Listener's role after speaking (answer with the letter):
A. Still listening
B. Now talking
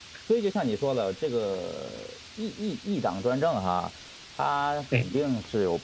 A